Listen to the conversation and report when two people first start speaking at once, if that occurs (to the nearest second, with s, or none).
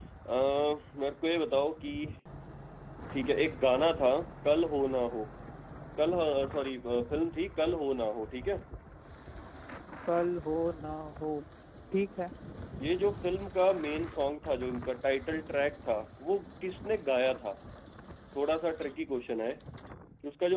none